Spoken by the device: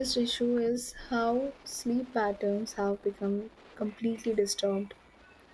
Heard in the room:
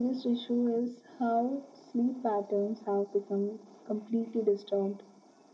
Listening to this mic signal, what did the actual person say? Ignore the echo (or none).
none